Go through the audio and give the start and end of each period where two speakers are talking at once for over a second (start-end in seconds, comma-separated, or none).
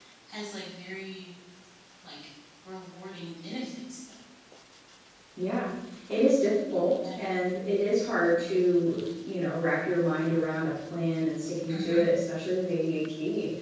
none